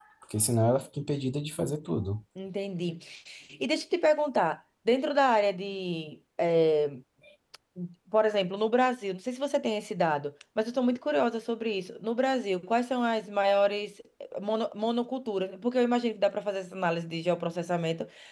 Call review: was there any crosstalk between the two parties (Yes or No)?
No